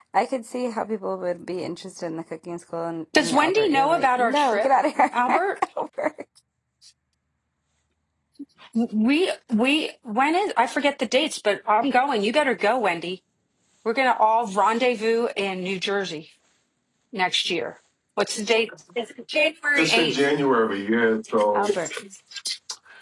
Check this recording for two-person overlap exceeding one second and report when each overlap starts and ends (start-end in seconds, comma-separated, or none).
3.2-4.7